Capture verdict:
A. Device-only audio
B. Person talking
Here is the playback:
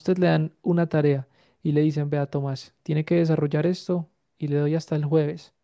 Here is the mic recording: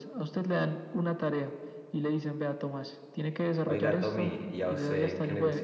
B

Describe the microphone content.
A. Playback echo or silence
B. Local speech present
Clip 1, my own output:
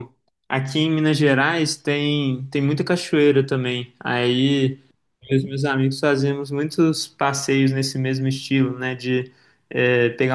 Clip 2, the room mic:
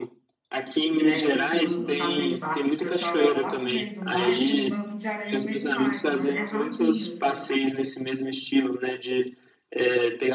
B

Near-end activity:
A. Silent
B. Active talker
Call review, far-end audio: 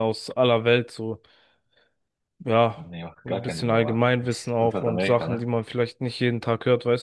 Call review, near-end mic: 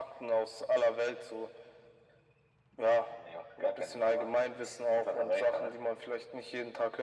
A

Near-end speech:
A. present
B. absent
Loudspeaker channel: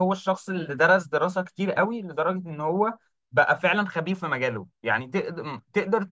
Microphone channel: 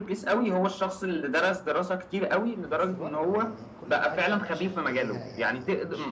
A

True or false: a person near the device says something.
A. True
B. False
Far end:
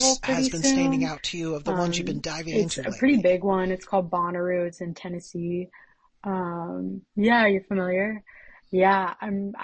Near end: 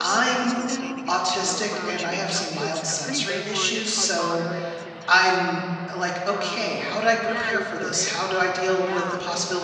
A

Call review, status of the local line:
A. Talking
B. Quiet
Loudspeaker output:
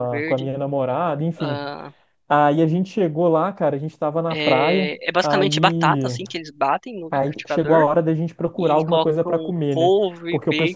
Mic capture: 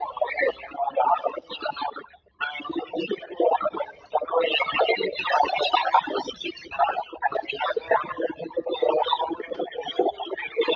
B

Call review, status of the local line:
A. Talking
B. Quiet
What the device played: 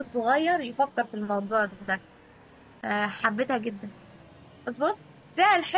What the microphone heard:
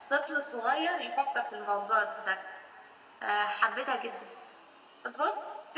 B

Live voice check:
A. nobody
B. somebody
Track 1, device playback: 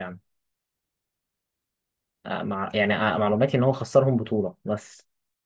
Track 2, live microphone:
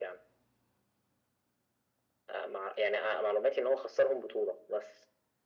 A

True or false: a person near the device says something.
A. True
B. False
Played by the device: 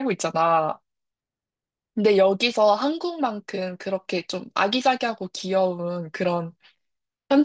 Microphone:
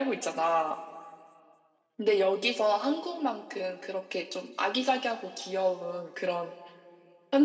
B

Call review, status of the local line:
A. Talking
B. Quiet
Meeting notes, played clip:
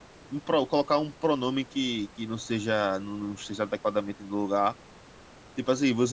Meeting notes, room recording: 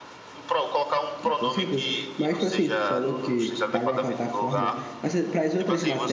A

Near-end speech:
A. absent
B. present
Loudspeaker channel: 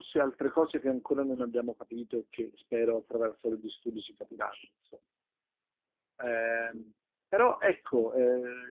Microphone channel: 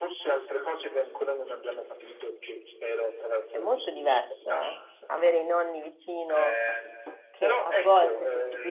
B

